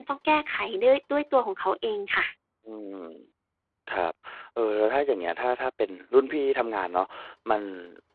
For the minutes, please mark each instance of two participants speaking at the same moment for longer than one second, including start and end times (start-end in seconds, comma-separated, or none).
none